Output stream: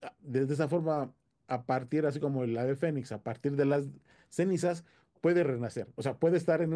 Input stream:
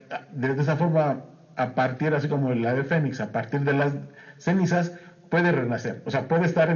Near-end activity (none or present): none